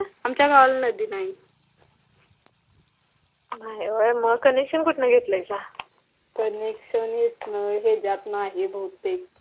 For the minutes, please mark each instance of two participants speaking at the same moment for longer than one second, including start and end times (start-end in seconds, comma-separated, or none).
none